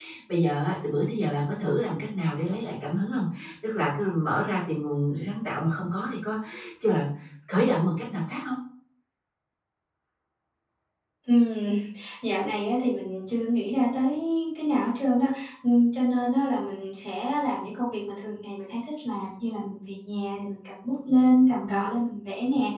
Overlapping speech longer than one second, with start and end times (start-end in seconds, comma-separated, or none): none